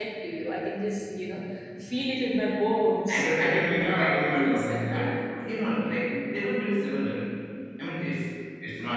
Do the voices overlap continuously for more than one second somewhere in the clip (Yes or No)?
Yes